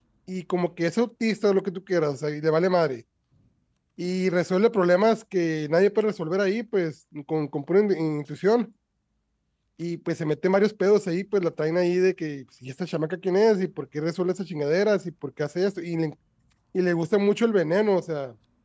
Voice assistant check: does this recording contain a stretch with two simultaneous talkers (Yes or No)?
No